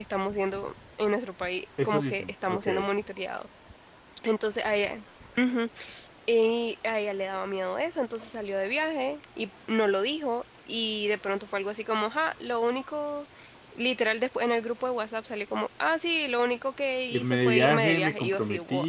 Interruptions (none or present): present